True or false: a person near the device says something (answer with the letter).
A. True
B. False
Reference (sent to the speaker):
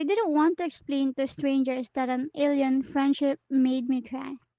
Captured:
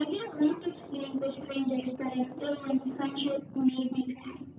B